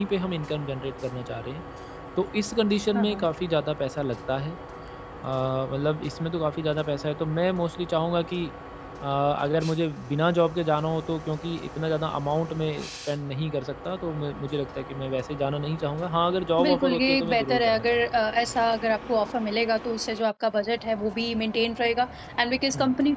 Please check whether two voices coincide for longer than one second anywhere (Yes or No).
Yes